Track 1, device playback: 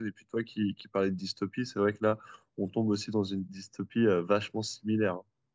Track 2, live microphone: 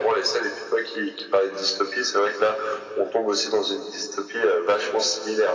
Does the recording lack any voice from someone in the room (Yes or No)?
Yes